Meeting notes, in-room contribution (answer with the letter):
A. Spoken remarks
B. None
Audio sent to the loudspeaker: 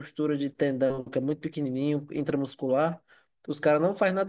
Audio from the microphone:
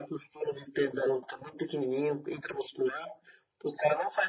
B